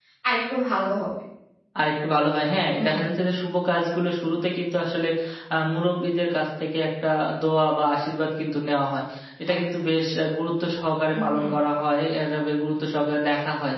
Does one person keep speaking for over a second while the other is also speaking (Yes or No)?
No